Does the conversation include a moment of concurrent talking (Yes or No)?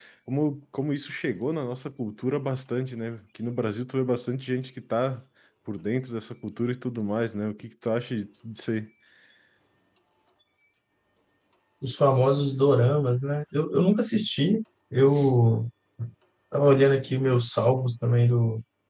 No